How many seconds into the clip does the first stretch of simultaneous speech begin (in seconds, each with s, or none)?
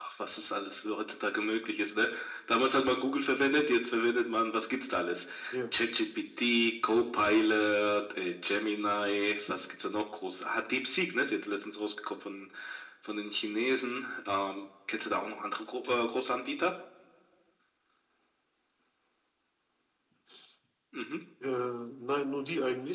none